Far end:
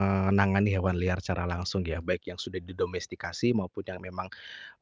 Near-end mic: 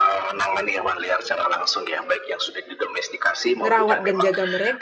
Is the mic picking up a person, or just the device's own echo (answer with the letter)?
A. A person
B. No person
A